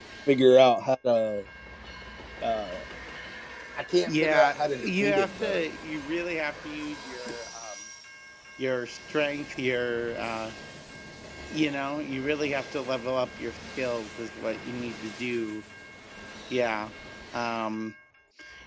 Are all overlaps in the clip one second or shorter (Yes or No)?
No